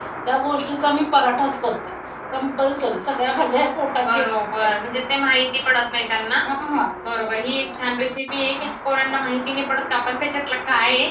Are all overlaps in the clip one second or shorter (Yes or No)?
Yes